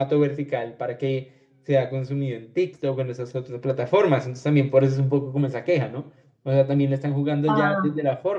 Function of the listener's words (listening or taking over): listening